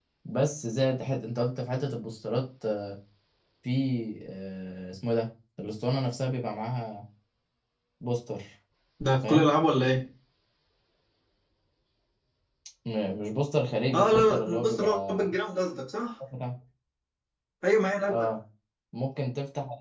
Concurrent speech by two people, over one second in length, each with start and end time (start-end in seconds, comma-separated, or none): 13.9-15.3